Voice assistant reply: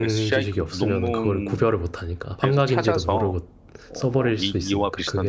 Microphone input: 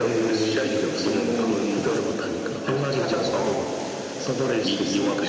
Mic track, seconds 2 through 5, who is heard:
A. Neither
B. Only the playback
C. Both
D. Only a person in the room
B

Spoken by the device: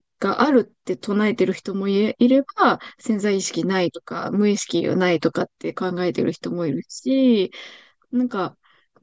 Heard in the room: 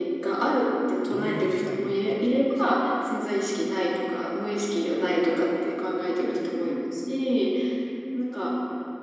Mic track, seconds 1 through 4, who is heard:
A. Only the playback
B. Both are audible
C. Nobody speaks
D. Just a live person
B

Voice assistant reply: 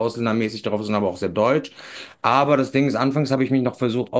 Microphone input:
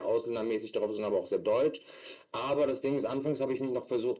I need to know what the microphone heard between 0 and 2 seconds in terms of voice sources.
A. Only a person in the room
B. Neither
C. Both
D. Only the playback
D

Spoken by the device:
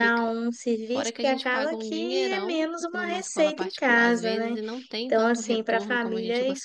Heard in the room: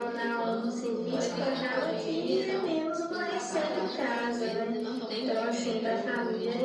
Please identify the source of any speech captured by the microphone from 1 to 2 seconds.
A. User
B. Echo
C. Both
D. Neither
C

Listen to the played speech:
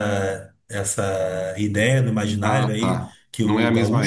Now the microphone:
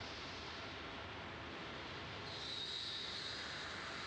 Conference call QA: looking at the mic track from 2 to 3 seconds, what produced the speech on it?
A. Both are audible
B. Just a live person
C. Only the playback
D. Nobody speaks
D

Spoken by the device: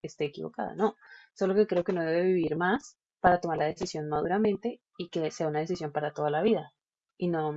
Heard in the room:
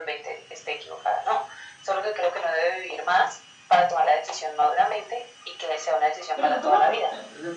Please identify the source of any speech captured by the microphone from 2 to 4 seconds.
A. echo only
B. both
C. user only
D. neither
A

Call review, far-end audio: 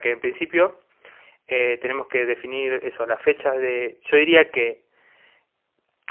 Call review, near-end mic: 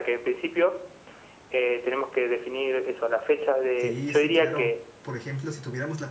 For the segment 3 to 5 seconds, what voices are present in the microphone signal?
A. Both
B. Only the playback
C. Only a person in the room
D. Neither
A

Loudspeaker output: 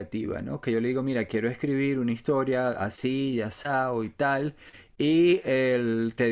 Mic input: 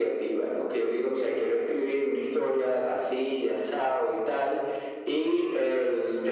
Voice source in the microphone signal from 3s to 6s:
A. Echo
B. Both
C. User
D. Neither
A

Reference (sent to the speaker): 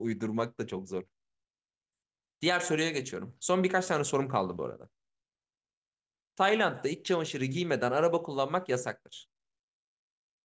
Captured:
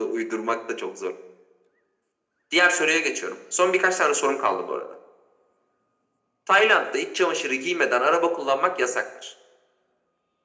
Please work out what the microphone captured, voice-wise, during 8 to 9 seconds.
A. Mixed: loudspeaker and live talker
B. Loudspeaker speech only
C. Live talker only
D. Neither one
B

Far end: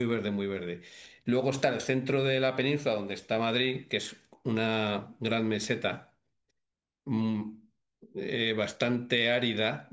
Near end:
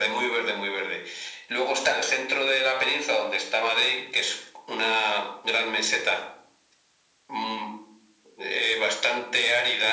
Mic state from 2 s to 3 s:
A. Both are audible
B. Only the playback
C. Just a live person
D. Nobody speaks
B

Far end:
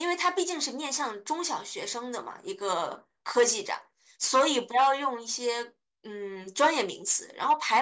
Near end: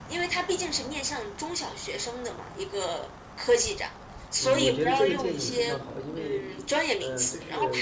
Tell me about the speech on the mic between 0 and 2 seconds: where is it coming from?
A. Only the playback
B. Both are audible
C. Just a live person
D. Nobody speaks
A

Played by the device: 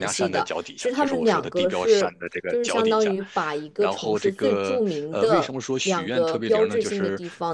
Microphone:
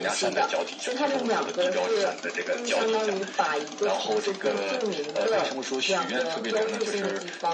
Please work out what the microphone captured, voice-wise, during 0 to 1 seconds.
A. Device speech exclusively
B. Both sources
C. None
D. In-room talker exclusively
A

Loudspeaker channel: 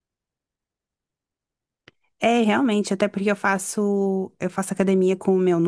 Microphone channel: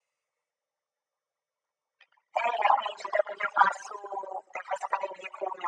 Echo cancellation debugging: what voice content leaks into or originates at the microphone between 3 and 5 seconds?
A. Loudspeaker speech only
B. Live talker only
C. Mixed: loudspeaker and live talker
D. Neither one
A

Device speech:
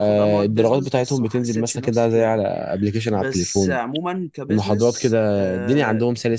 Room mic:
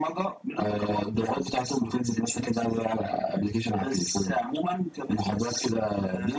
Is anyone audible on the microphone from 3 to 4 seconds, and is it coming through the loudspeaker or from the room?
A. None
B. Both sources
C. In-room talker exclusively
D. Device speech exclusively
D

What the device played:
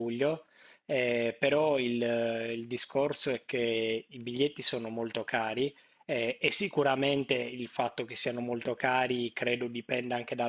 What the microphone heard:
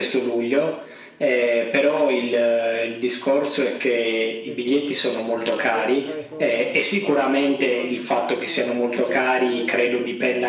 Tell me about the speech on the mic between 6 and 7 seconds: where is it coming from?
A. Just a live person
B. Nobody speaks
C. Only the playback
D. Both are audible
D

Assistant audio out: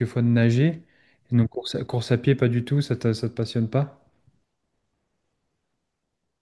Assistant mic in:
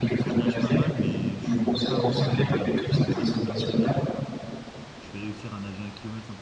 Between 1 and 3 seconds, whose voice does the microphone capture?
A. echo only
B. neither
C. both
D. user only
C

